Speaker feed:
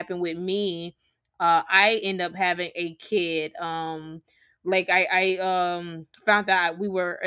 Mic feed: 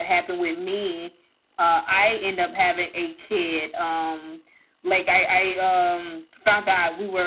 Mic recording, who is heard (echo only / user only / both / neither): echo only